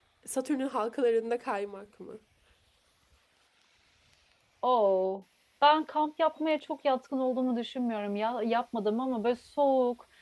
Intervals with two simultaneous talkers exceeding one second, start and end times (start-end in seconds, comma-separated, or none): none